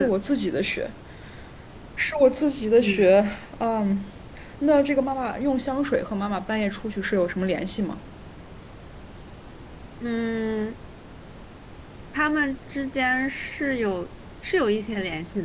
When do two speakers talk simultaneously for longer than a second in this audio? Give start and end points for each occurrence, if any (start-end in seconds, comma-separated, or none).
none